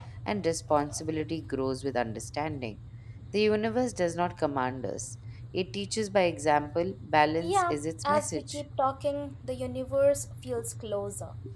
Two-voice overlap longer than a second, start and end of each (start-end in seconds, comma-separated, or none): 7.4-8.6